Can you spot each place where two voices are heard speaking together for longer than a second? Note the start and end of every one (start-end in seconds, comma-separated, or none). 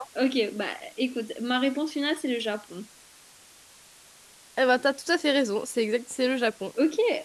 none